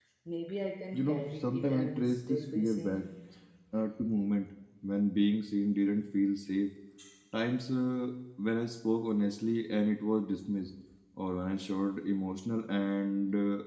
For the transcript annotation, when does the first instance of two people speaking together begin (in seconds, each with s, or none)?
0.9 s